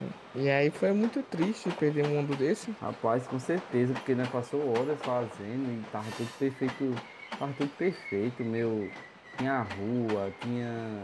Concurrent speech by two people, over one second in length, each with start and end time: none

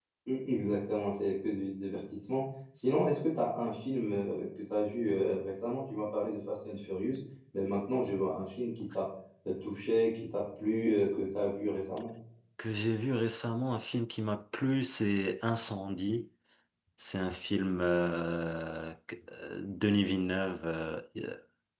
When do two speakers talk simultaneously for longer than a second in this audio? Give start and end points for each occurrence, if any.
none

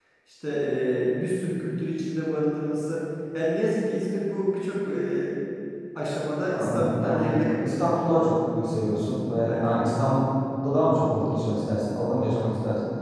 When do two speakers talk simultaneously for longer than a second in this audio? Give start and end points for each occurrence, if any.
6.5-8.1

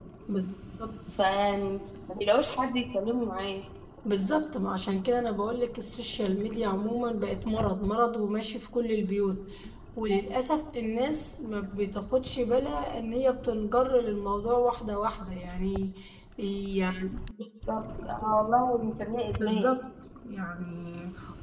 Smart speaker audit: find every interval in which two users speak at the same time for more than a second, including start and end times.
none

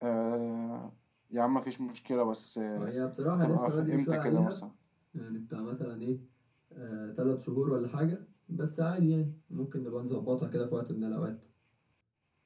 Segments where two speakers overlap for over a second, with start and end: 3.3-4.6

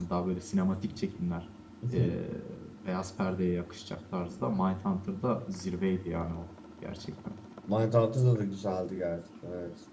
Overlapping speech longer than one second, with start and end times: none

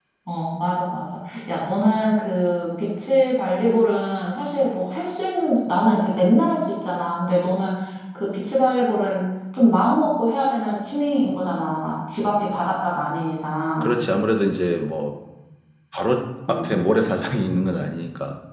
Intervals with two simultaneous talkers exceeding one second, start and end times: none

